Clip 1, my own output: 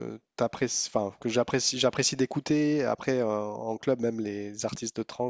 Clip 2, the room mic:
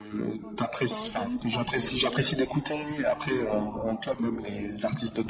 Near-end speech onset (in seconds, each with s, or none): 0.4 s